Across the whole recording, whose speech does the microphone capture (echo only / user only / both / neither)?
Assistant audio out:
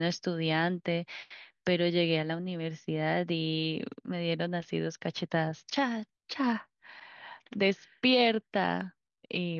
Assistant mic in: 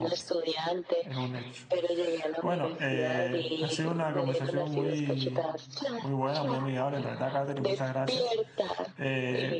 both